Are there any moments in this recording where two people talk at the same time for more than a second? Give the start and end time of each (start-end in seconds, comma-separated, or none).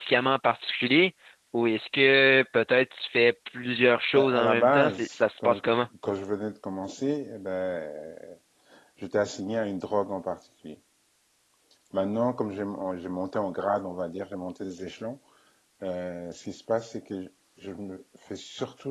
4.2-5.6